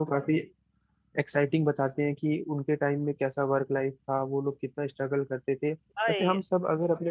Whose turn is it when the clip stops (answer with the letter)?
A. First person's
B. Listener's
A